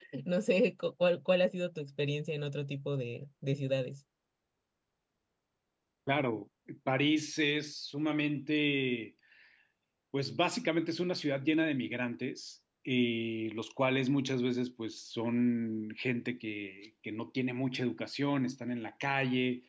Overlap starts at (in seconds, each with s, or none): none